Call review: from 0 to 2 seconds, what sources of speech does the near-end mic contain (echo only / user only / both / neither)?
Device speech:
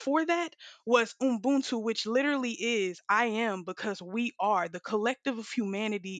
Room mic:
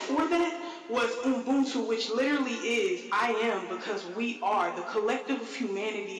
echo only